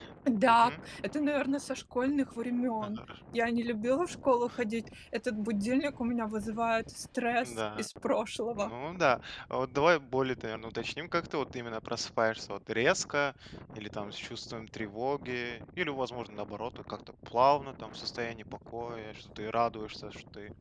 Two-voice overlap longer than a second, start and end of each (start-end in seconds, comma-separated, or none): none